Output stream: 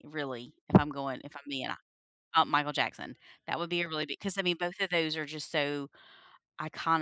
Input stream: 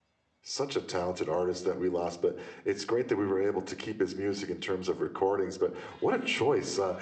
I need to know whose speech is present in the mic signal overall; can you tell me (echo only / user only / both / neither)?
user only